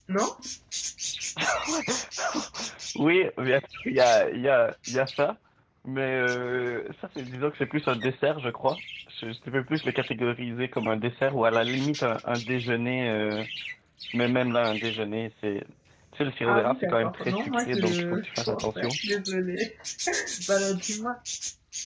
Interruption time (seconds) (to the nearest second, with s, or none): 16 s